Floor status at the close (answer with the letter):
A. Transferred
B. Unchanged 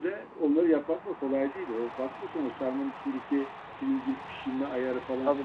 B